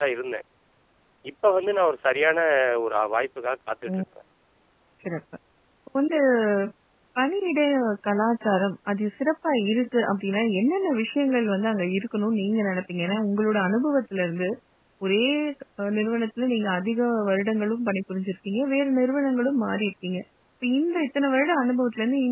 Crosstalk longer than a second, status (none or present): none